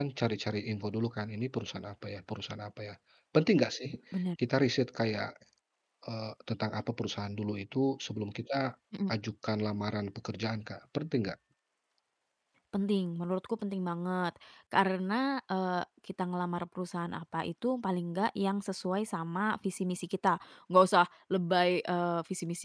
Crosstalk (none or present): none